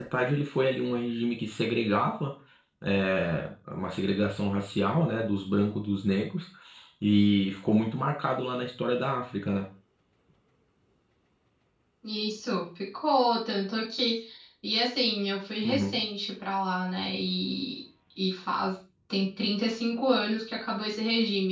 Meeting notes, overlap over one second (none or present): none